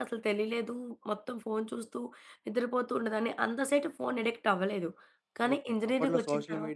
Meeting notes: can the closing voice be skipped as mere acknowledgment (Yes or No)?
No